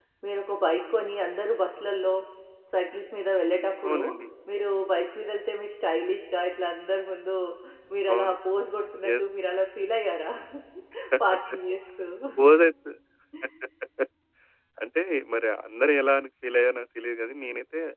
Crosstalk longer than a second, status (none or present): none